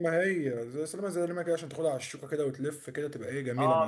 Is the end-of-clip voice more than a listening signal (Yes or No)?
Yes